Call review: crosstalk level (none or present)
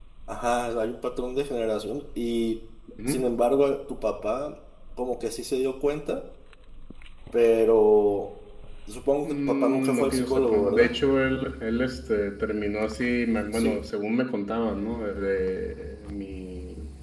present